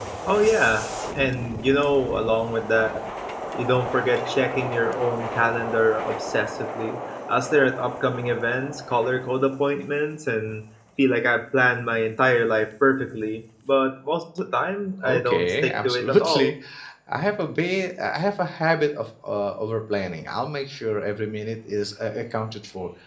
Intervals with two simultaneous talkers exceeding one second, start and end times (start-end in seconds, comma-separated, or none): 15.0-16.5